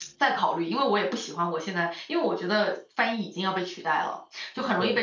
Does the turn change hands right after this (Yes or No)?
No